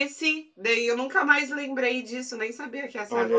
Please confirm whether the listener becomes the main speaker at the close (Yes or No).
Yes